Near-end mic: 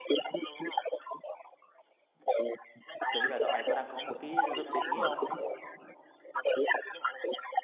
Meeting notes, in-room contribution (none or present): present